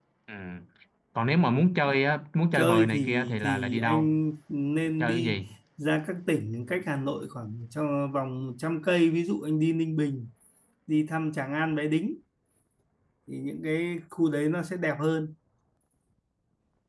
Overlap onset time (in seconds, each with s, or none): 2.5 s